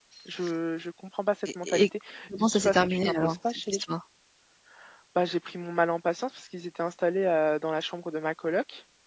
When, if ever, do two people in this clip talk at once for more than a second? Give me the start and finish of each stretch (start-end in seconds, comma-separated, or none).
2.4-3.9